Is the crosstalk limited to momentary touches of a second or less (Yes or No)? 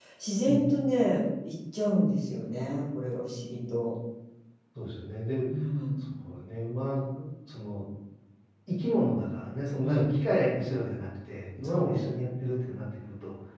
Yes